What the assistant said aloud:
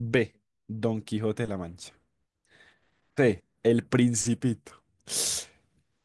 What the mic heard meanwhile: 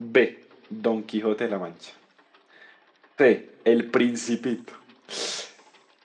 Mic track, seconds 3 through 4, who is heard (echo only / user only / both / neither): echo only